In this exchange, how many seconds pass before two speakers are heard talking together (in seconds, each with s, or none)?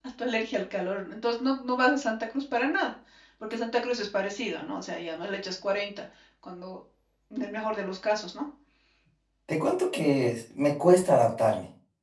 none